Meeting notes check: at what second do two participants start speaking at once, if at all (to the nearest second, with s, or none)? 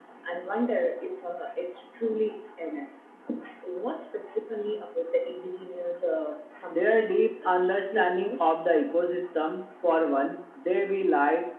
7 s